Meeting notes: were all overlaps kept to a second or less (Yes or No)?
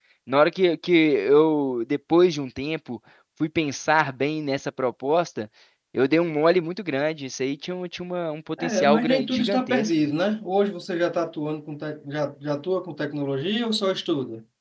No